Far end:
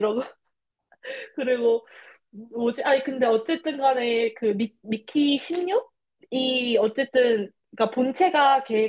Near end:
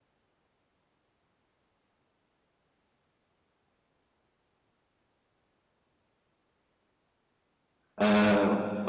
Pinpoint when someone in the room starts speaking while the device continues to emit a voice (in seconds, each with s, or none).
8.0 s